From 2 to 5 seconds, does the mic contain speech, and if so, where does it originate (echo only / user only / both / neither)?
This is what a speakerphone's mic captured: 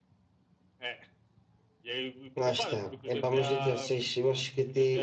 both